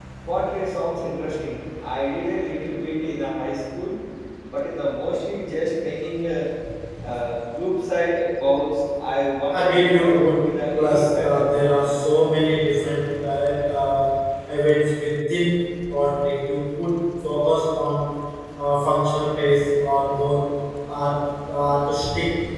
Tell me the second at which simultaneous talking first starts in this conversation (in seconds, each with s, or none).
9.5 s